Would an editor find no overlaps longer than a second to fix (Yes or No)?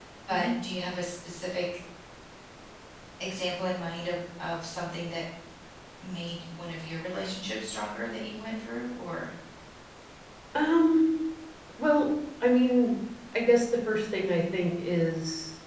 Yes